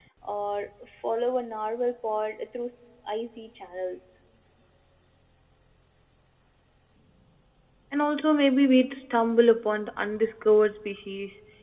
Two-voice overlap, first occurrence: none

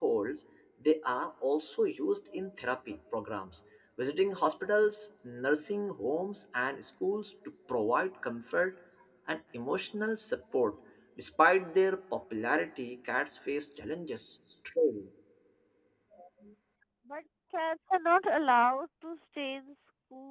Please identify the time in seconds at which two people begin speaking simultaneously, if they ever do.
none

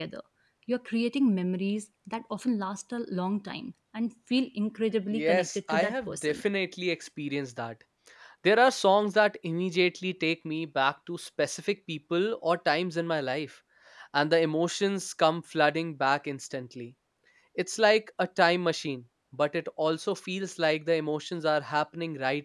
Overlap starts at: 5.1 s

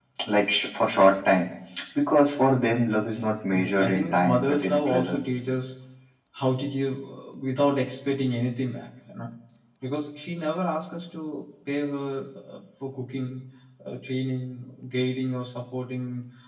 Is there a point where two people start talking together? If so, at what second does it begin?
3.5 s

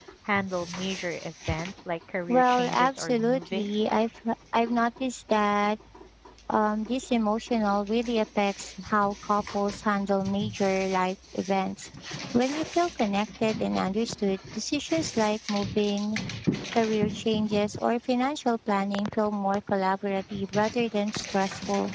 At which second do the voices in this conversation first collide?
2.3 s

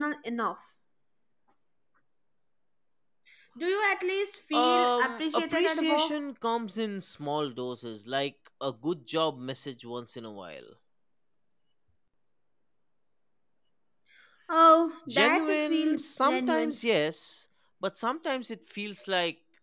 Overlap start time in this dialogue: 4.5 s

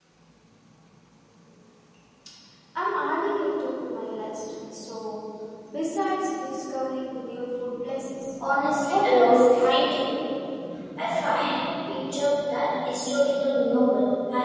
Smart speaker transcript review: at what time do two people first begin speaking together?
8.9 s

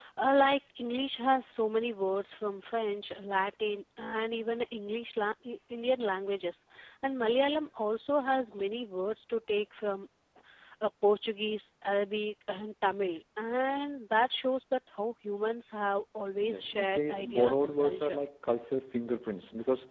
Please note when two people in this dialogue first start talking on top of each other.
16.4 s

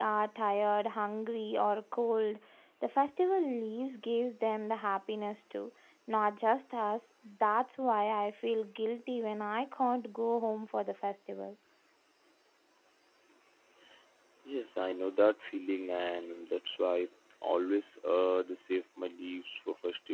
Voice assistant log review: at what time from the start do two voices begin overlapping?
none

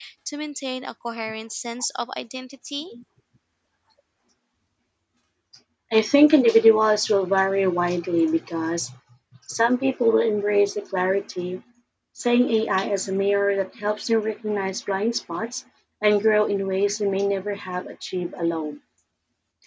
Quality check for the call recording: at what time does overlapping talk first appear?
none

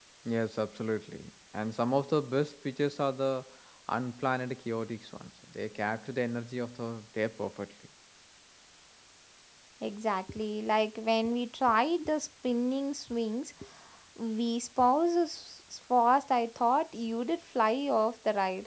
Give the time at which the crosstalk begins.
none

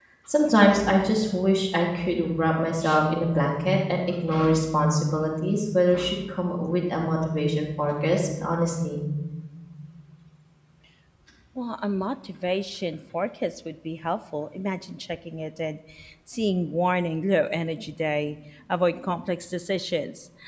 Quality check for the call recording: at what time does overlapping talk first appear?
none

